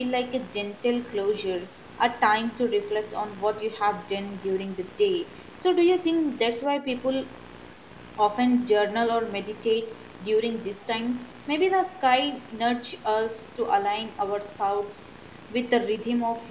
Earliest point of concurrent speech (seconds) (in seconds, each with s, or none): none